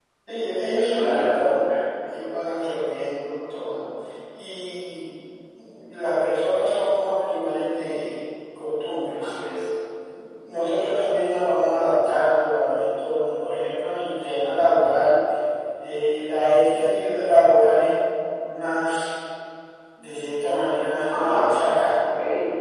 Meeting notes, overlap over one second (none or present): none